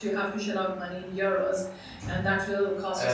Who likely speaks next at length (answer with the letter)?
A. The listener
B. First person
A